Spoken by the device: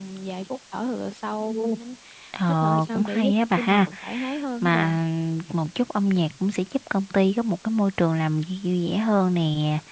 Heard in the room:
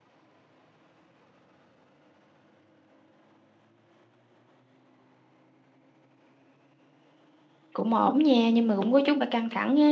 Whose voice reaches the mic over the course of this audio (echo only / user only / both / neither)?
user only